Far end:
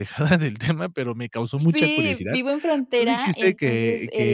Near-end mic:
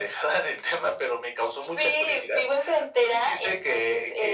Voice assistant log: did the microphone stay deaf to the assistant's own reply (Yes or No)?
No